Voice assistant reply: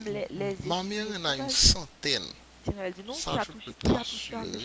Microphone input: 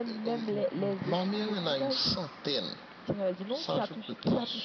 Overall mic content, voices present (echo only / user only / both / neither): echo only